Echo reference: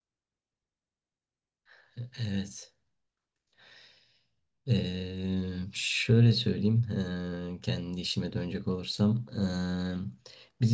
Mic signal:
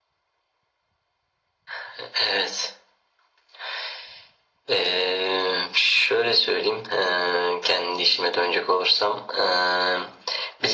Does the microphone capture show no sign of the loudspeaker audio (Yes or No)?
No